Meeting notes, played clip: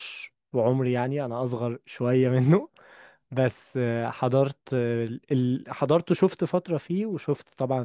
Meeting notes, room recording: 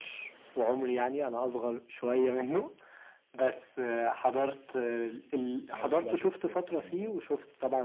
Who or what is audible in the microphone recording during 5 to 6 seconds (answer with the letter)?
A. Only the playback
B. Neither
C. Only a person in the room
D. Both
D